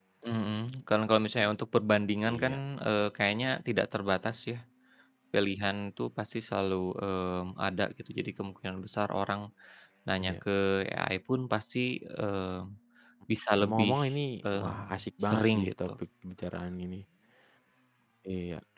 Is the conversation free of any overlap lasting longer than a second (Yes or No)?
No